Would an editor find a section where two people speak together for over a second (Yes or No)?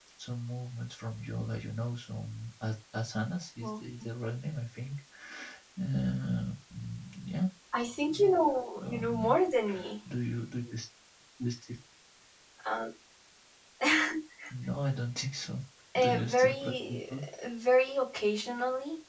Yes